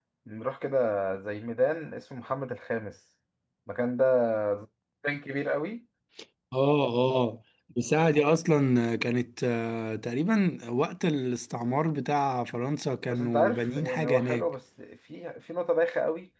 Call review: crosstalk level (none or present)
present